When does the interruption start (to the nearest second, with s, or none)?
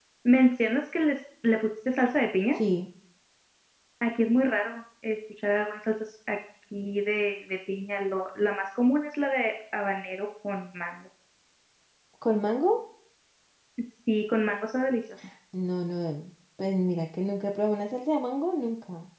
none